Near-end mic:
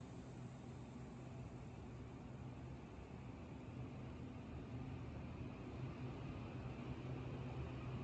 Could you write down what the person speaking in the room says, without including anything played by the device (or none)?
none